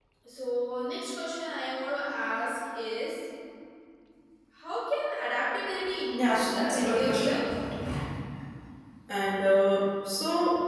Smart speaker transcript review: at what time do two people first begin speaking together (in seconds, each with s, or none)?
6.1 s